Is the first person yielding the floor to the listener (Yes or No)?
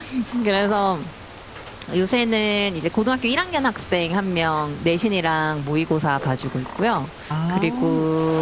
No